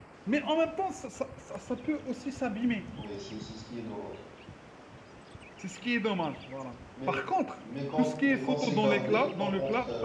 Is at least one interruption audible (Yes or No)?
Yes